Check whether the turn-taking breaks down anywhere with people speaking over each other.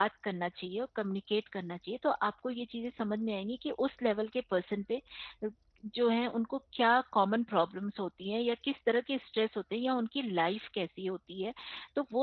No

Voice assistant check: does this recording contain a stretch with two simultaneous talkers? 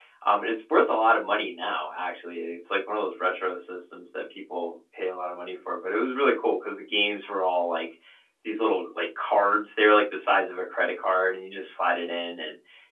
No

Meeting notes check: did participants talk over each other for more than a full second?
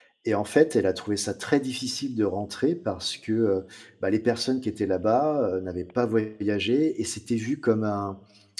No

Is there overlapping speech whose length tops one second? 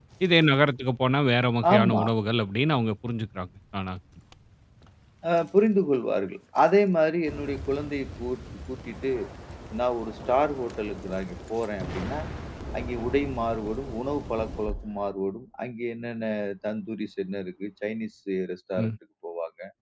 No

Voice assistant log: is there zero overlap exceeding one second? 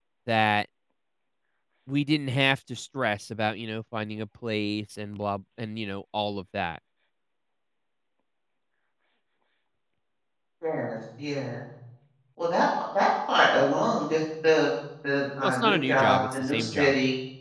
No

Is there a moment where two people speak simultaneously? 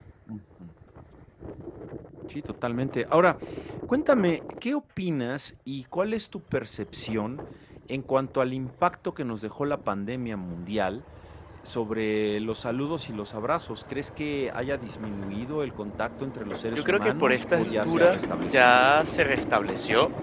Yes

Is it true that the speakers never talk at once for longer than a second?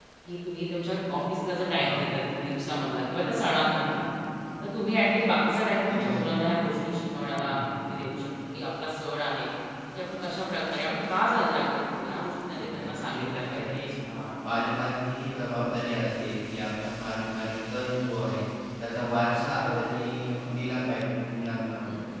No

